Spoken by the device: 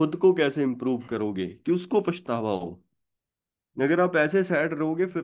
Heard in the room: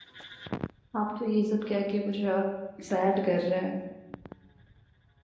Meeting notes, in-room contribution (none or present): present